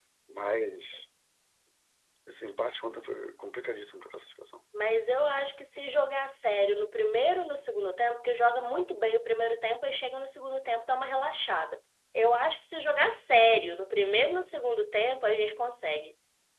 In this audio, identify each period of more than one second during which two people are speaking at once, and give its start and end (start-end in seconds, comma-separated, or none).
none